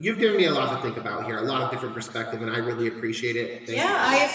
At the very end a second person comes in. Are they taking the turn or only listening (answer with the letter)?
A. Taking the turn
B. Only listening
A